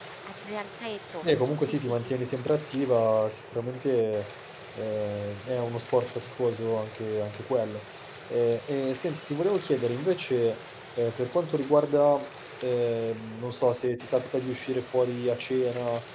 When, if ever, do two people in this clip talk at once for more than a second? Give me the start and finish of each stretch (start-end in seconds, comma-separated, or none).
1.2-2.5